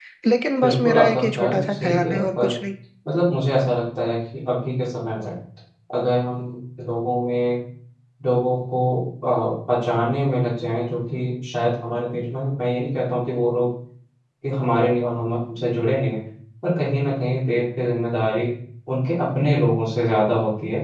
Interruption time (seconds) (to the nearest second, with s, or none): 1 s